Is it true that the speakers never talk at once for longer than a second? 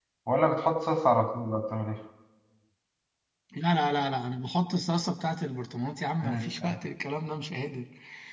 Yes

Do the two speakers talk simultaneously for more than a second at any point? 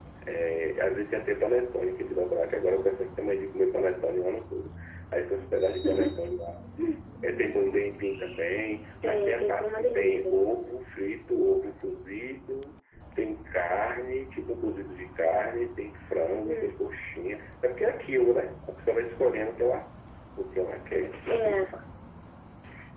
Yes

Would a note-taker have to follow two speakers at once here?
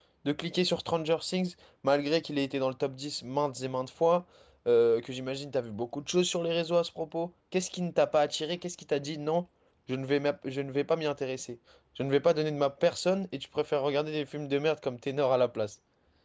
No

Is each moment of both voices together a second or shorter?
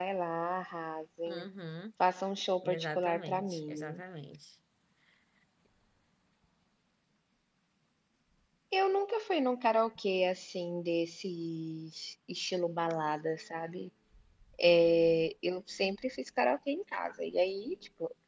No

